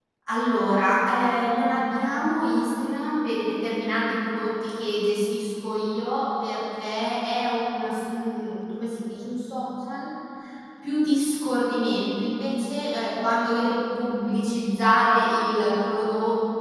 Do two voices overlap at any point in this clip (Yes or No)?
No